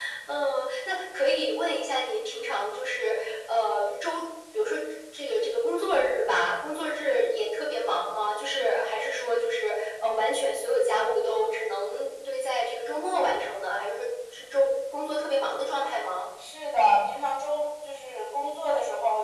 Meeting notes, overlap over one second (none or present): none